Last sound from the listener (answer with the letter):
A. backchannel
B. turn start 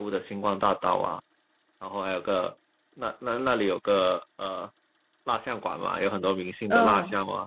A